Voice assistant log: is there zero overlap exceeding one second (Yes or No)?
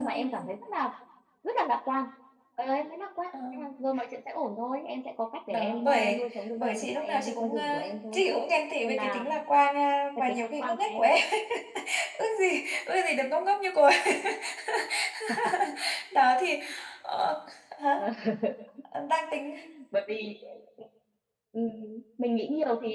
No